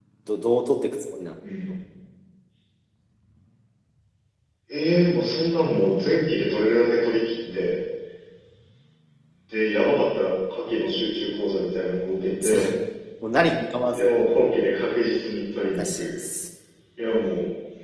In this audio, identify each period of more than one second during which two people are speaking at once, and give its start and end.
none

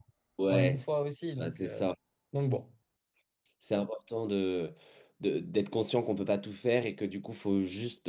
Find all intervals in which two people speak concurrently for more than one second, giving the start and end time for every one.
none

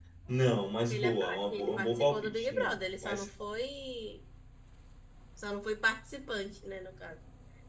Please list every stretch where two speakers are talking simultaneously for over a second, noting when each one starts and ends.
0.8-3.3

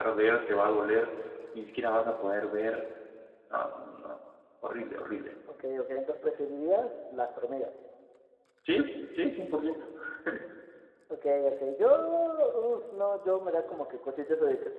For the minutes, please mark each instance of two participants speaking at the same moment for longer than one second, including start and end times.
none

